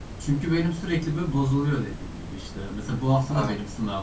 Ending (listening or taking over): listening